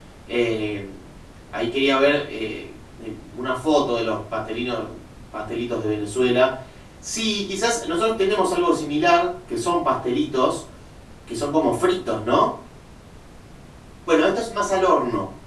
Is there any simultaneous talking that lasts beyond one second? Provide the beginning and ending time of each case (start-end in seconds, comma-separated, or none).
none